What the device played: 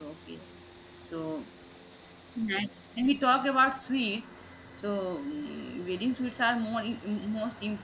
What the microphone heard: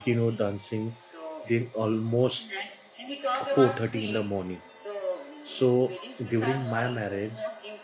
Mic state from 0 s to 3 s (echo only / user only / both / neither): both